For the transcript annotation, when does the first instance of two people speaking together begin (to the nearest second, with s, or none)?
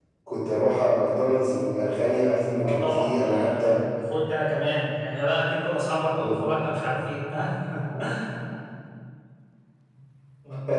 3 s